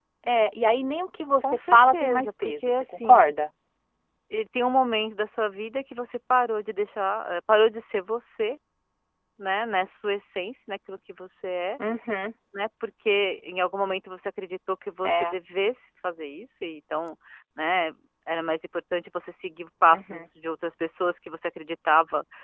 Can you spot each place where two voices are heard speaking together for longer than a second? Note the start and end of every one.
1.7-3.3

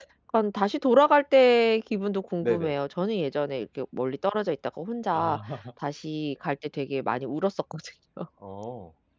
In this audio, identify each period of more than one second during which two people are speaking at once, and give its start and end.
none

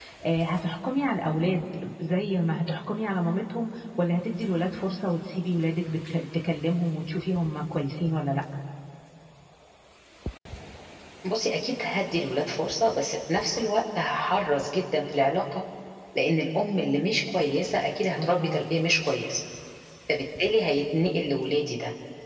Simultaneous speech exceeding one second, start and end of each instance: none

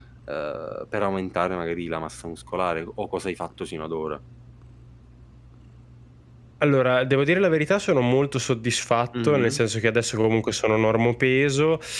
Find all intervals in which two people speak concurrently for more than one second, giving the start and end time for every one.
none

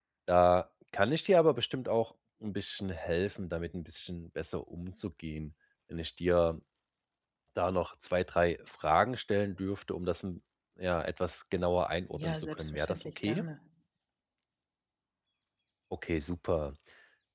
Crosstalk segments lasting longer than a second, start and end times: 12.1-13.4

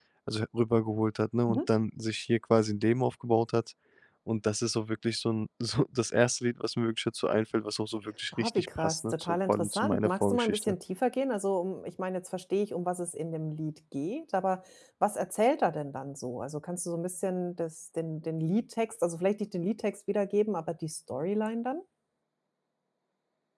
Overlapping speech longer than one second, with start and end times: 8.4-10.7

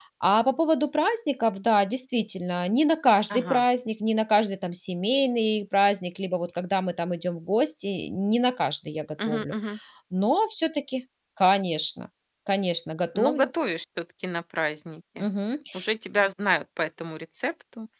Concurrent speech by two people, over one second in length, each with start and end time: none

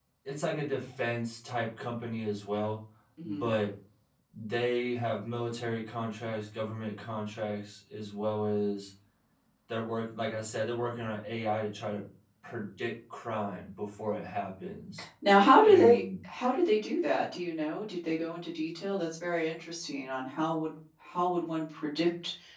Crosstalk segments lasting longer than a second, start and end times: none

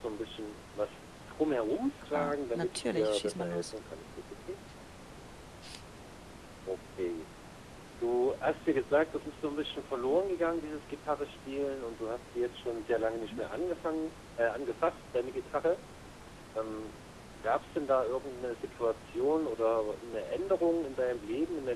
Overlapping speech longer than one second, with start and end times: 2.1-3.7

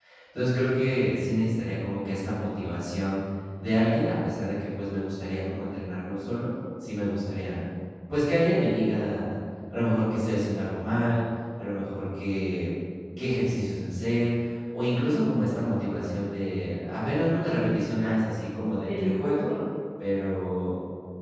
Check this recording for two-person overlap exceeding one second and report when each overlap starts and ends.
18.0-19.5

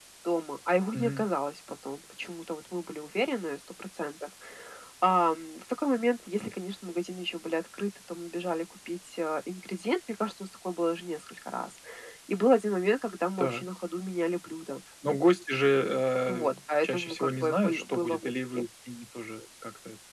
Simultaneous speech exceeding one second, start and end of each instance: 16.5-18.6

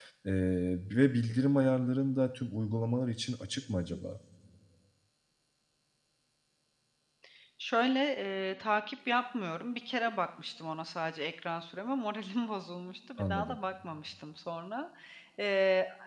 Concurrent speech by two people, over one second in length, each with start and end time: none

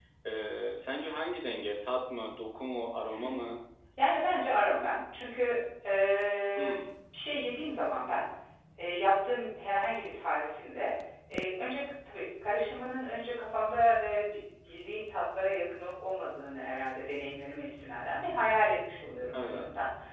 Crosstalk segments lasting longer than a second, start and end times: none

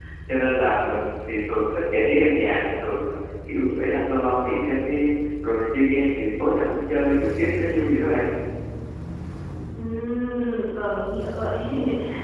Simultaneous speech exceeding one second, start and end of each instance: none

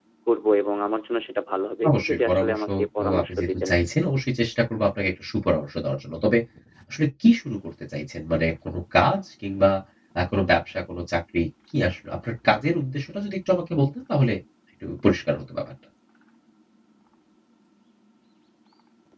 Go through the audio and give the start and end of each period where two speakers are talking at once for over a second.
1.9-3.7

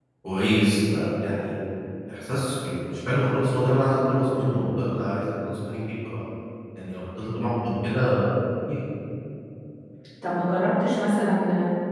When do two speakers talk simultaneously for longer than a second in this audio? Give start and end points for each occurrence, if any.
none

